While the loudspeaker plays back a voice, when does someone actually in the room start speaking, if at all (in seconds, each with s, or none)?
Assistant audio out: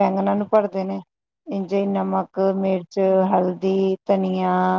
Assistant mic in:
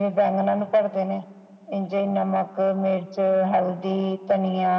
none